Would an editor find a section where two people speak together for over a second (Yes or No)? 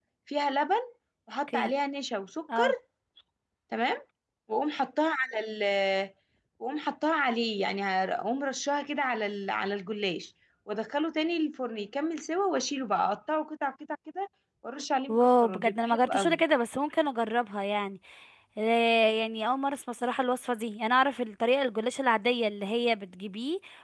Yes